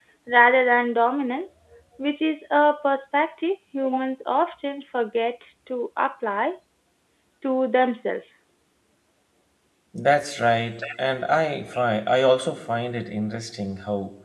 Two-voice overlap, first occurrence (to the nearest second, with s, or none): none